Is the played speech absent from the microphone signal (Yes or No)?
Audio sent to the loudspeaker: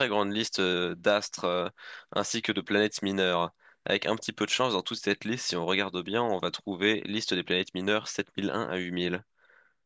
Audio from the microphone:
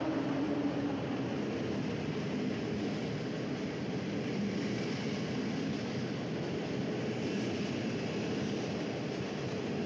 Yes